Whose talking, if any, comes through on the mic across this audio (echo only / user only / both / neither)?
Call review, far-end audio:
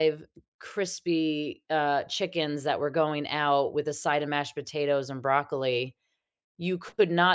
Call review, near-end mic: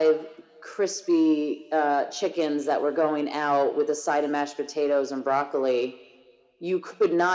echo only